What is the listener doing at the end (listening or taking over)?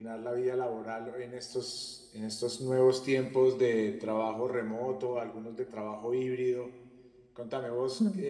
listening